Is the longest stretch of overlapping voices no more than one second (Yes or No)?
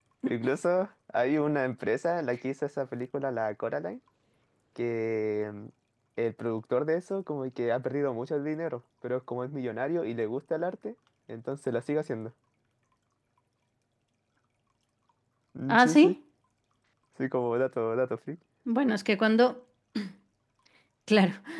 Yes